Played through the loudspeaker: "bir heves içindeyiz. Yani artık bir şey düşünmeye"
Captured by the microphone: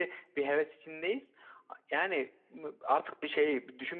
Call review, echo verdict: present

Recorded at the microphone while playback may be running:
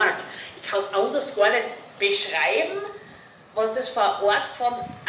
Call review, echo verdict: present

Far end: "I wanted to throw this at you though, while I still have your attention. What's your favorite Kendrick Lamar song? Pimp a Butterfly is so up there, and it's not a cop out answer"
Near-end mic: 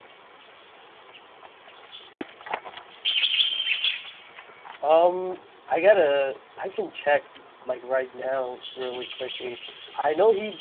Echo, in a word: none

